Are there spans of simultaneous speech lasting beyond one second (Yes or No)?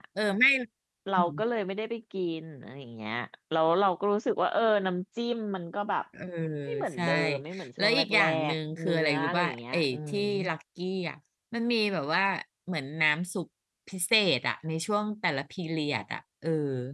Yes